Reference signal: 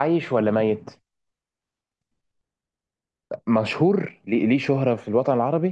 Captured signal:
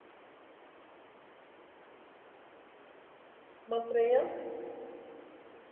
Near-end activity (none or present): present